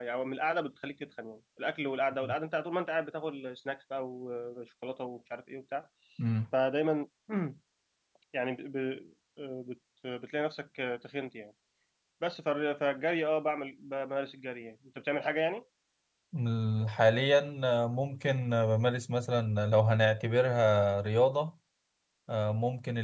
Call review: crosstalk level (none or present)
none